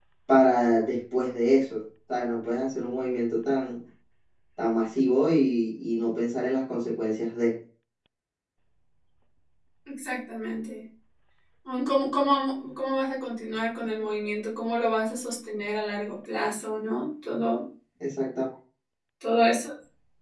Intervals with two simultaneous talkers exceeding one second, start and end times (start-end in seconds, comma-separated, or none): none